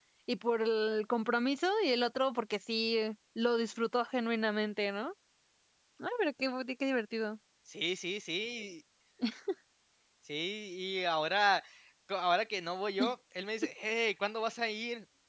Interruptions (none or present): none